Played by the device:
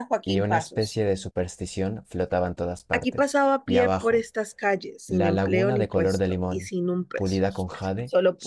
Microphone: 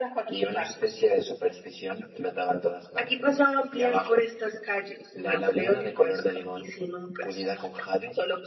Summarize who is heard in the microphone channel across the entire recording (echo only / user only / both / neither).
echo only